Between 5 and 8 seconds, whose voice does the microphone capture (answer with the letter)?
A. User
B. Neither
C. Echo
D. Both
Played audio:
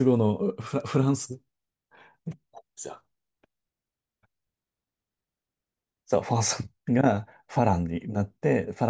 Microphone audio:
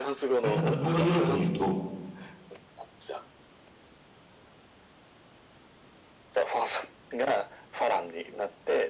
C